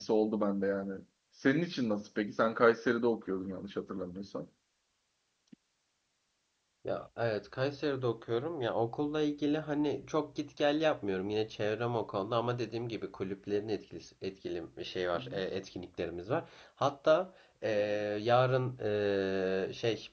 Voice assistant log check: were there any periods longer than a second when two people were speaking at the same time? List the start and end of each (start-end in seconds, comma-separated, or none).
none